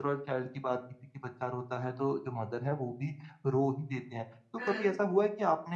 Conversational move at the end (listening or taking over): listening